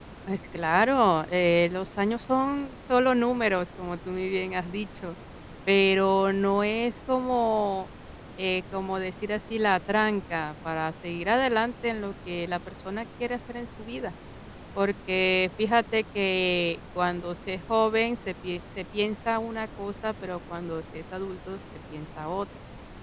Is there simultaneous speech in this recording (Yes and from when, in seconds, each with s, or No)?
No